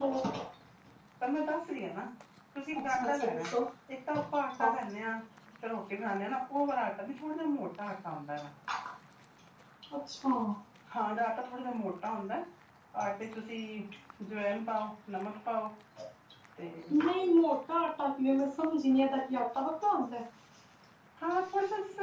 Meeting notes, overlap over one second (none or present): none